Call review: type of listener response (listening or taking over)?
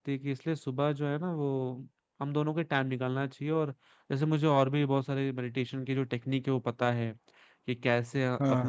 listening